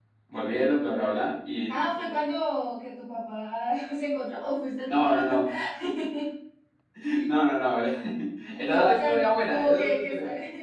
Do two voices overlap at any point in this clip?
Yes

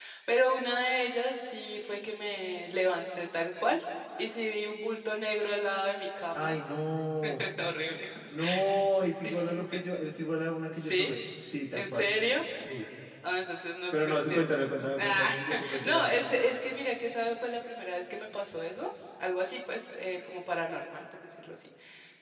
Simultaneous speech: Yes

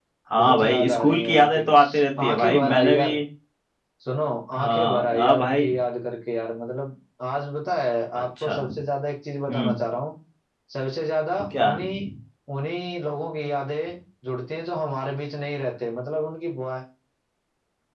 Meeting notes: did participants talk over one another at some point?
Yes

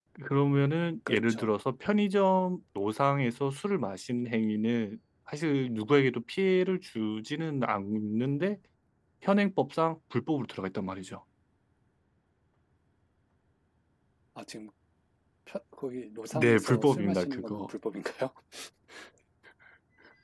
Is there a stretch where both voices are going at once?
Yes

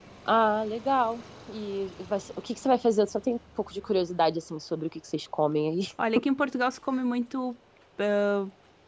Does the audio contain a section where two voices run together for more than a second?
No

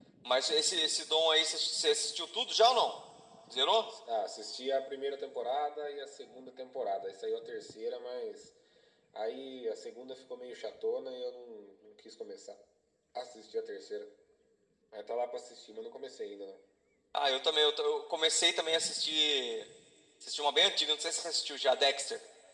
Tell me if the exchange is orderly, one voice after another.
Yes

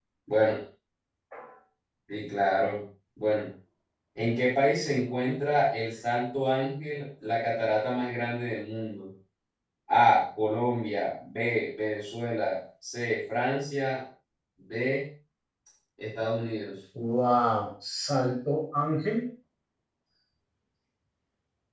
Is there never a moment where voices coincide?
Yes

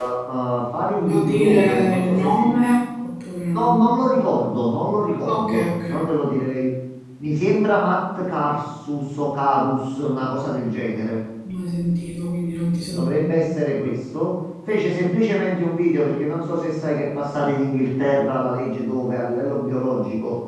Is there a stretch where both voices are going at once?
Yes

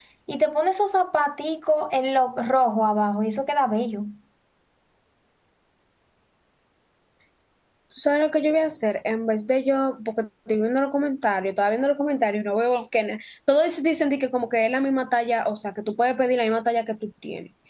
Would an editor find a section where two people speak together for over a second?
No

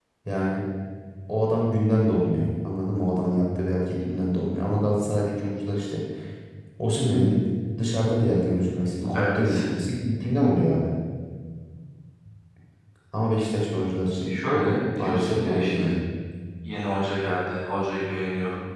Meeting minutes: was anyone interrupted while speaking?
Yes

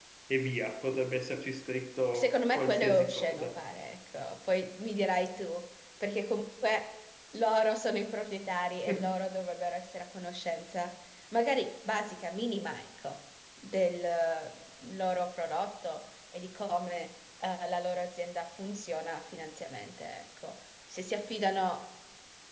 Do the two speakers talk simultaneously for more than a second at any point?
Yes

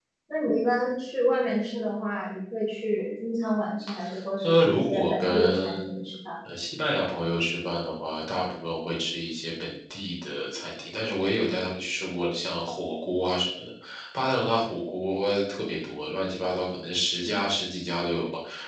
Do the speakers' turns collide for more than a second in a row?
Yes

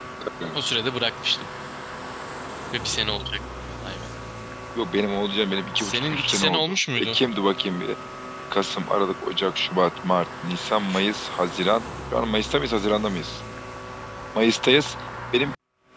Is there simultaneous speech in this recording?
Yes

